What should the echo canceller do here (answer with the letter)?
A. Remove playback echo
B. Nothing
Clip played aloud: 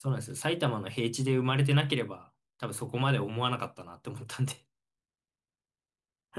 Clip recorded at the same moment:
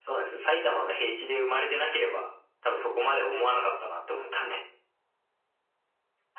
A